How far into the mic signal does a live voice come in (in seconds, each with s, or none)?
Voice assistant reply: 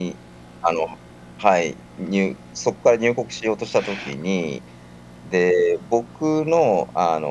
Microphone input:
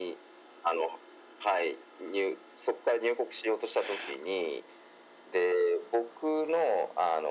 none